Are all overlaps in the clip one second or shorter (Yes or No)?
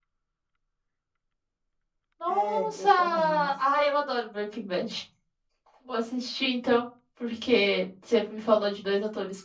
No